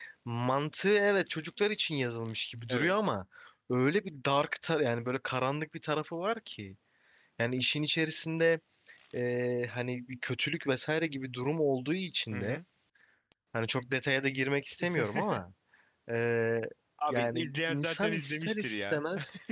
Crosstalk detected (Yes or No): Yes